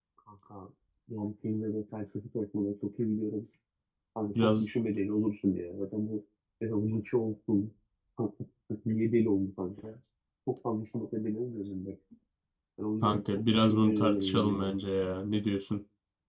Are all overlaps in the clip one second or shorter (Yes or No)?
No